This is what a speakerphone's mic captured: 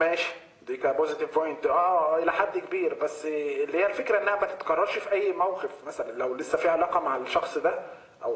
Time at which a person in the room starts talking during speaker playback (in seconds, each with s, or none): none